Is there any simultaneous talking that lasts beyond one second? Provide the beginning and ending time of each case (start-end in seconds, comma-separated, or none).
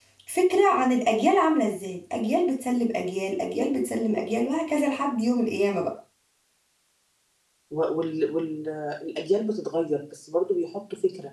none